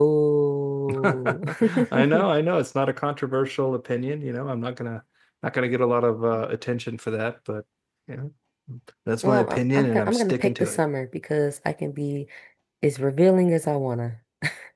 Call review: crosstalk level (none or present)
present